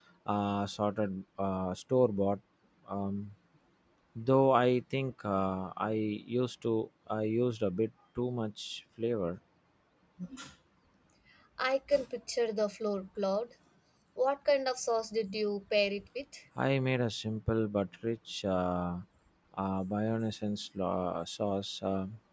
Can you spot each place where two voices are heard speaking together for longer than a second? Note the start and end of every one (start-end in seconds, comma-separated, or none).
none